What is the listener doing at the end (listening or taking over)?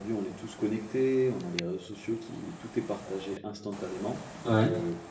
listening